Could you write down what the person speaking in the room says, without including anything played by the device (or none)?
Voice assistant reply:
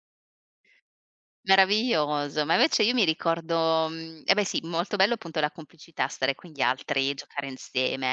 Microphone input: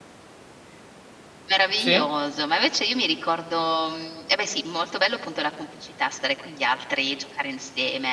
Sì.